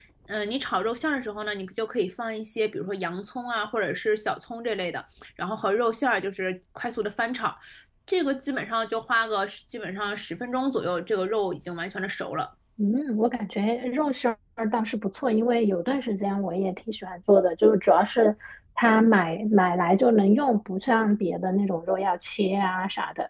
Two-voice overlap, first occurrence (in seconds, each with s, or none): none